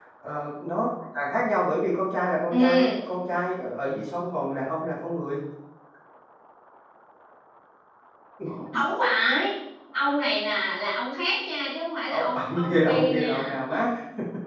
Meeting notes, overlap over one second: present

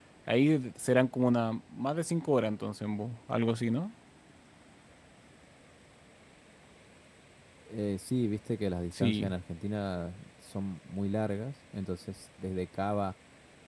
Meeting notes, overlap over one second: none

